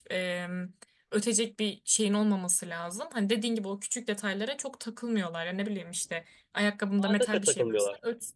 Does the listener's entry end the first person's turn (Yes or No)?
No